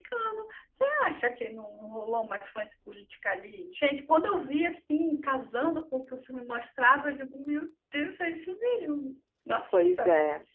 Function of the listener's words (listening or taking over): taking over